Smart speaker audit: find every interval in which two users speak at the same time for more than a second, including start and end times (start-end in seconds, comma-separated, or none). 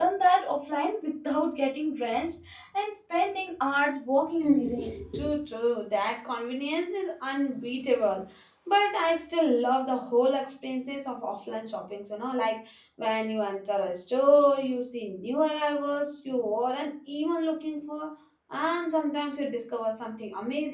none